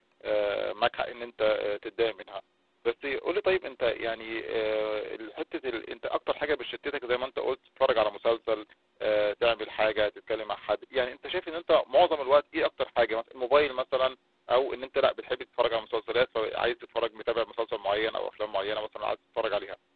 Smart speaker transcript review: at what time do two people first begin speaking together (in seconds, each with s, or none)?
none